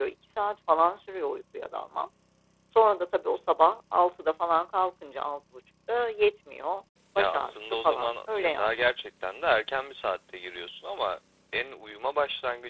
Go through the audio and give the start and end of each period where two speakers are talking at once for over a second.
7.2-8.8

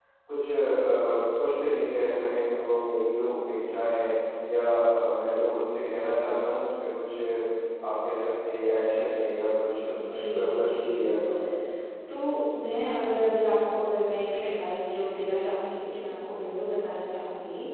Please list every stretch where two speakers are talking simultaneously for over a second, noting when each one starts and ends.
10.1-11.5

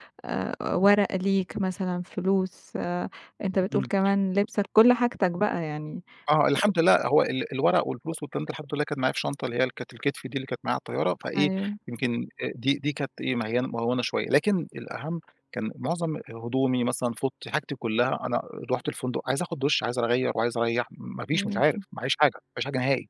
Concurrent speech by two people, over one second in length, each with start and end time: none

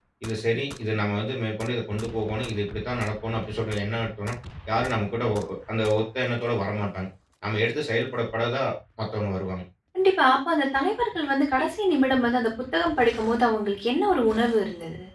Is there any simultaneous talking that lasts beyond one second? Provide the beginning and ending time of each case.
none

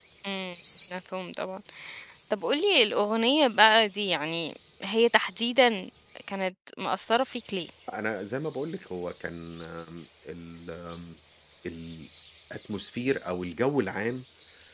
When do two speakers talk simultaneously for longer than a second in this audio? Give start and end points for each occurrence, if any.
none

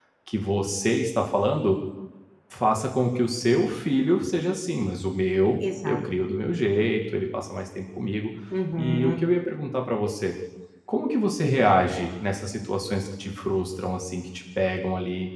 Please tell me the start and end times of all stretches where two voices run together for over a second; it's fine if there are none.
none

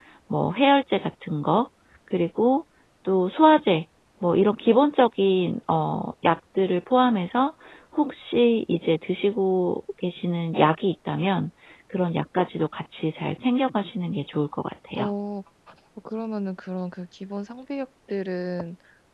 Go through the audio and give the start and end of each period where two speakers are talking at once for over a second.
none

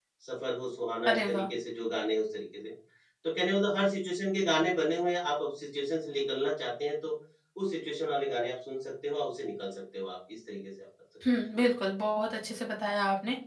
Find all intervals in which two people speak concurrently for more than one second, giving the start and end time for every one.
none

